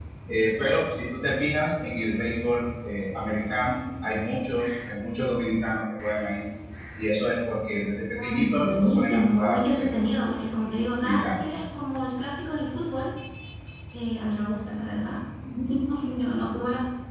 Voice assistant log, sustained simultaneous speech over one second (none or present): present